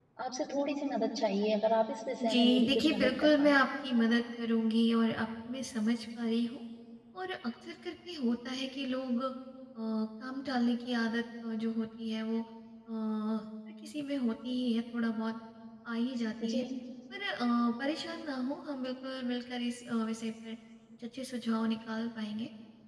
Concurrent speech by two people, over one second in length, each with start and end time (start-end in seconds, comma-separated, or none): 2.3-3.6